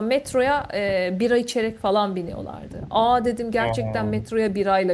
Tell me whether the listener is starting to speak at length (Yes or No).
No